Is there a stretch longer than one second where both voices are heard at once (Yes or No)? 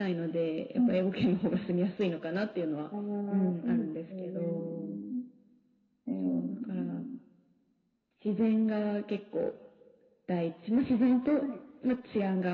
Yes